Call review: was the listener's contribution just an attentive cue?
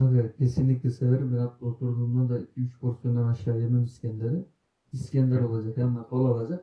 Yes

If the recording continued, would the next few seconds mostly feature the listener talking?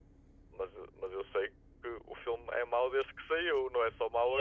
Yes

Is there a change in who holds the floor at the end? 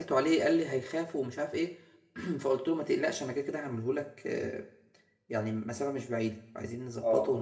Yes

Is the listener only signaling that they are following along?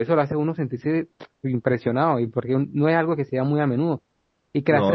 Yes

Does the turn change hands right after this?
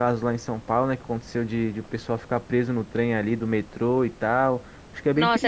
Yes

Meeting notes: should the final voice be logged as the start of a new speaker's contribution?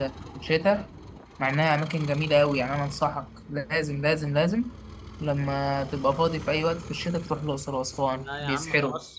Yes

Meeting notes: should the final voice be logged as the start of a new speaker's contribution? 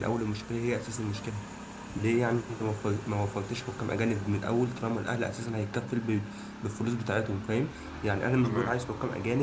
No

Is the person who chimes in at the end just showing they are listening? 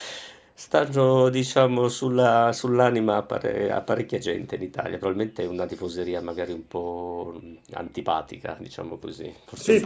No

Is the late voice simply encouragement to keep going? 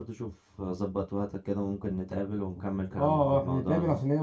No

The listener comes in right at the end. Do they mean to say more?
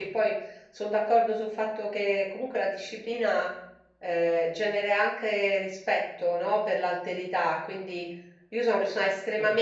No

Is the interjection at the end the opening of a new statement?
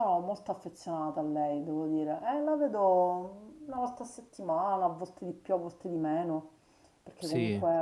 No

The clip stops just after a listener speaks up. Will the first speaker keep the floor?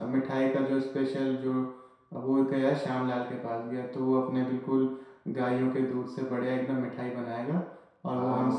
No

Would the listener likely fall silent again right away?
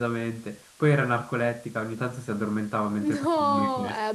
No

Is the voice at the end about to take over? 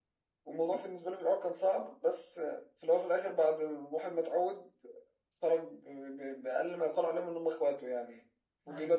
No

